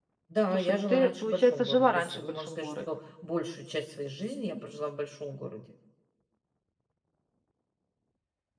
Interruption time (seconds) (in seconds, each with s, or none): 0.5 s